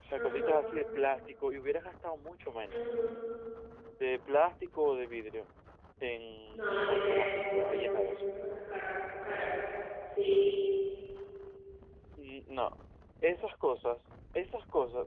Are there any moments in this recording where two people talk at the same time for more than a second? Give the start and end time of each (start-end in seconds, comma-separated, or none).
6.8-8.2